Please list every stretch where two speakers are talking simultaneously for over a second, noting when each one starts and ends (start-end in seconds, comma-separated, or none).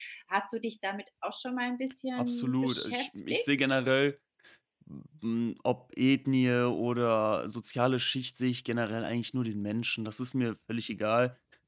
2.2-3.8